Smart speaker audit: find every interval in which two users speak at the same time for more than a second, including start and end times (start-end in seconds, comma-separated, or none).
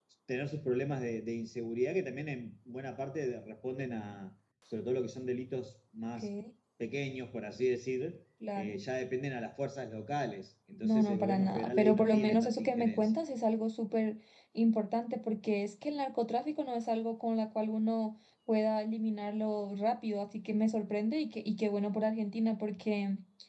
10.8-13.1